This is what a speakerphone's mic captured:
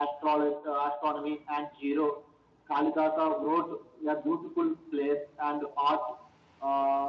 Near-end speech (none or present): none